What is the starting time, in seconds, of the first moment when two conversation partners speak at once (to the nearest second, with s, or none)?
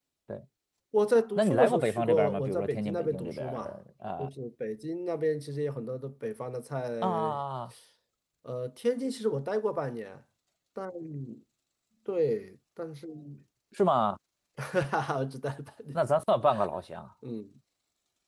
1 s